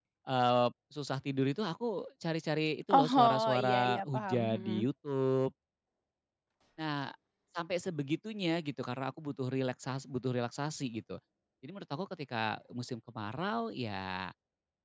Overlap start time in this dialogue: 2.9 s

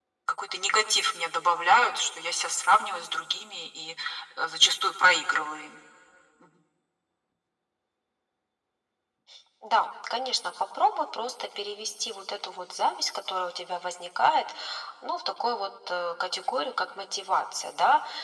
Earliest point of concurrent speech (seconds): none

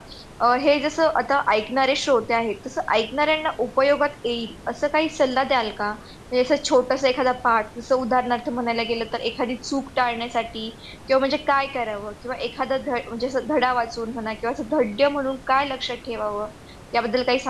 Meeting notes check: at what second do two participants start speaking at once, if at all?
none

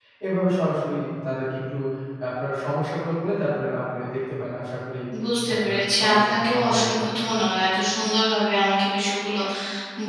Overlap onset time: 5.6 s

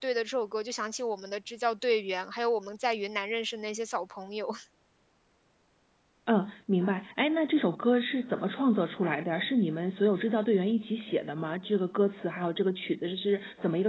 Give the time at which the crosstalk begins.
none

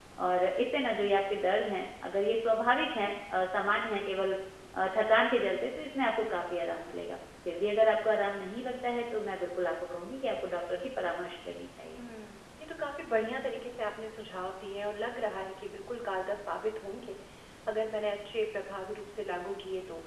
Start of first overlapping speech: none

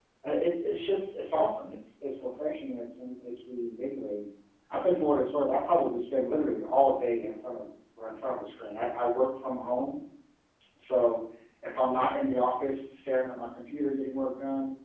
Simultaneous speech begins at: none

